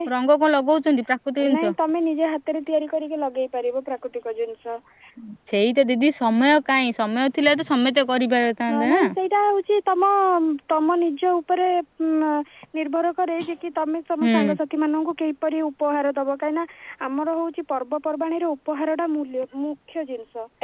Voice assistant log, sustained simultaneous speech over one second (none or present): none